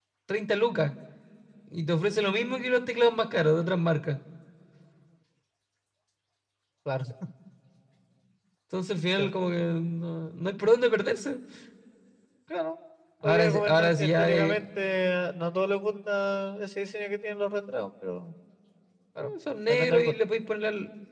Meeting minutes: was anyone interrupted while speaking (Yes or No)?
Yes